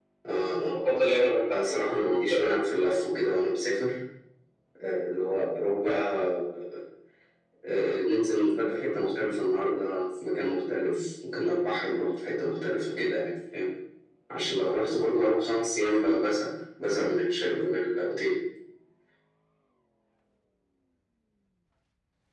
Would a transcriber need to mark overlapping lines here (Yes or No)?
Yes